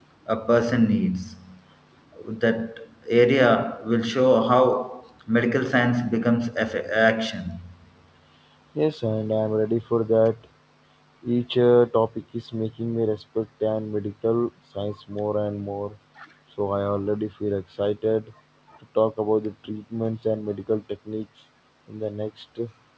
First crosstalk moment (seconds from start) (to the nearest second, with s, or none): none